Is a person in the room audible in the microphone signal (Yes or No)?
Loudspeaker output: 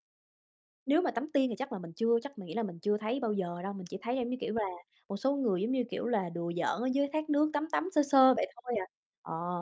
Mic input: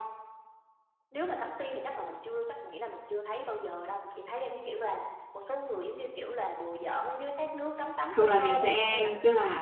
Yes